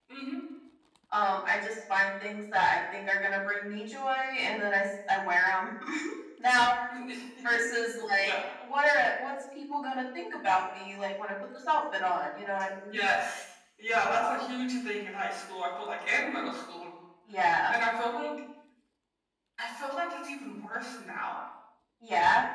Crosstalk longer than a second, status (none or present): none